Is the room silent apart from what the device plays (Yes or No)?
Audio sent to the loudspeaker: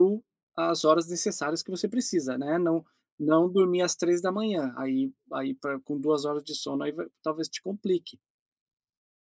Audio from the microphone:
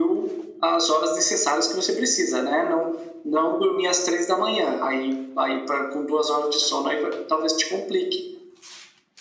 Yes